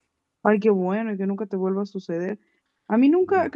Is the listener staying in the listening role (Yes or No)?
Yes